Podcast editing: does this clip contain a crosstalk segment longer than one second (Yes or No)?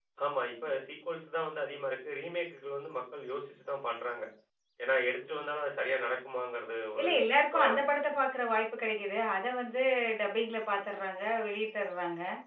No